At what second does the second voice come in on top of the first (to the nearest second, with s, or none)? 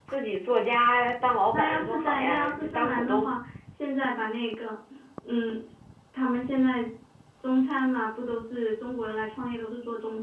2 s